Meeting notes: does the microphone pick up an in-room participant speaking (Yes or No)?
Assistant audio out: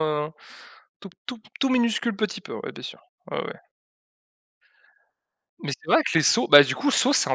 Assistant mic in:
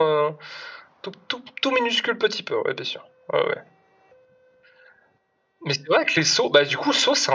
No